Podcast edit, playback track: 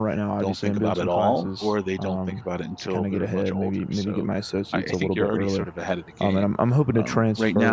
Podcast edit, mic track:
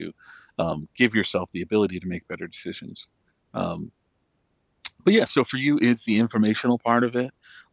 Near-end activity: present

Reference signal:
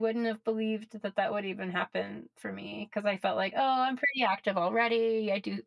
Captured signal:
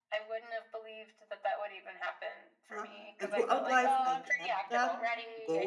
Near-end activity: present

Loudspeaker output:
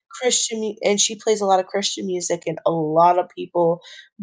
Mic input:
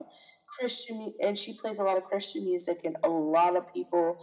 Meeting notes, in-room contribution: none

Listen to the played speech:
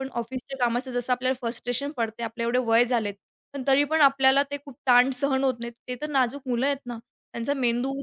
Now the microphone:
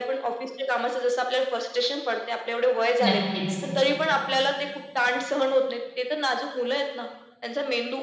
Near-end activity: present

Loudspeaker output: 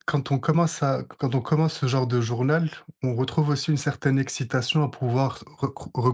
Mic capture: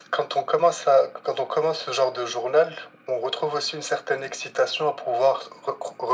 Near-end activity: none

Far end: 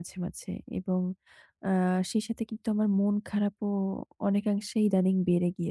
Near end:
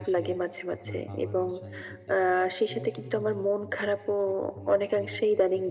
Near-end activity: present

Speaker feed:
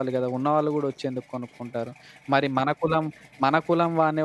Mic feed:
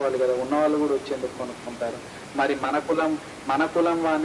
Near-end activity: none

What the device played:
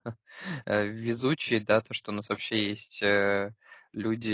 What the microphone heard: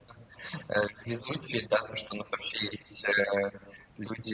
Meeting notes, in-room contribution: none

